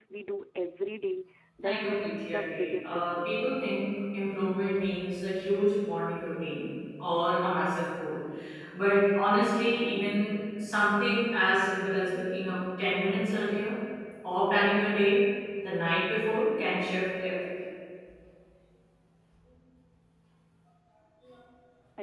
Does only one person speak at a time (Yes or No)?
No